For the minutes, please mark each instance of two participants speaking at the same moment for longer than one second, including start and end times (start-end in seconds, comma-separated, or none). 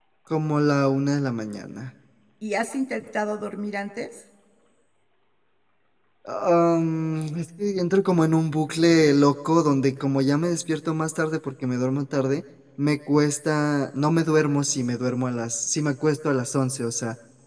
none